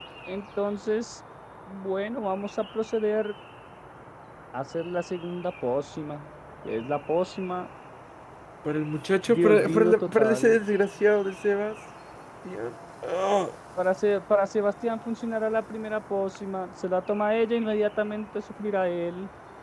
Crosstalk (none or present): present